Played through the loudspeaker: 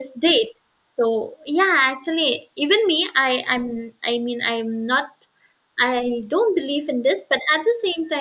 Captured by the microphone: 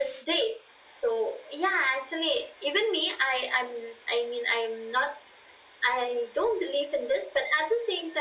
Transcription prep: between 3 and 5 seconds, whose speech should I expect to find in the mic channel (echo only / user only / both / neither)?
echo only